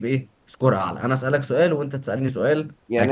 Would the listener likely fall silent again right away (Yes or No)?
No